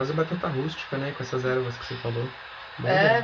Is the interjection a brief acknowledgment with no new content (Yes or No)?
No